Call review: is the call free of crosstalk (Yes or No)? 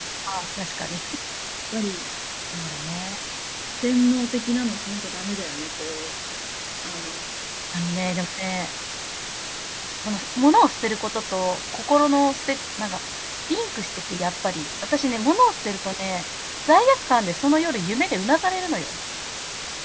Yes